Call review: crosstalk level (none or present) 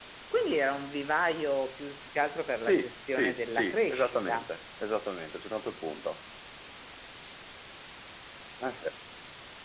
present